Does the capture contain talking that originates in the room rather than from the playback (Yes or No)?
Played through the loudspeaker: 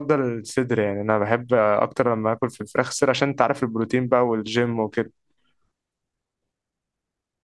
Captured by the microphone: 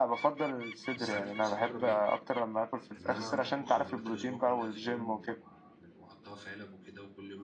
Yes